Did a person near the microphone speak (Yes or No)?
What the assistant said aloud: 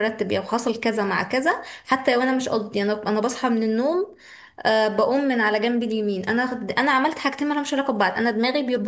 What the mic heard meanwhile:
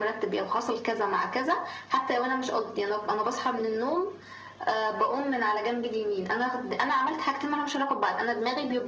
No